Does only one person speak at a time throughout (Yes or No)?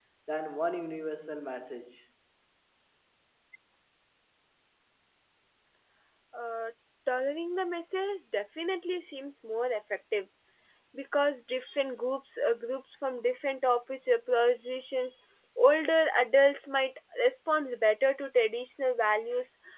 Yes